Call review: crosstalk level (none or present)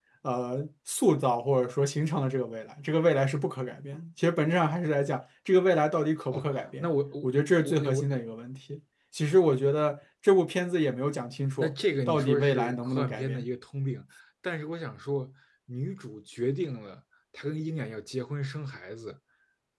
present